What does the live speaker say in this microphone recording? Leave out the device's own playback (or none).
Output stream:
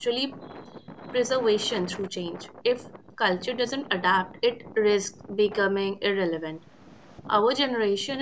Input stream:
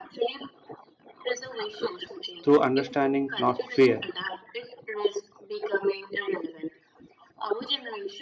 through understanding, not fear.